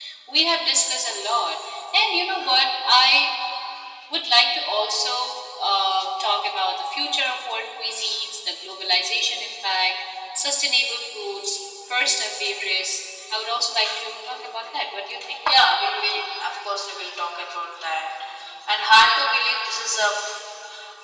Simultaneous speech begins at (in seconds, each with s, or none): none